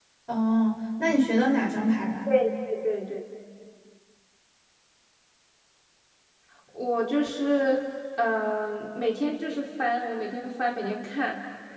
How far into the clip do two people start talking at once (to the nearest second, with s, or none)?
none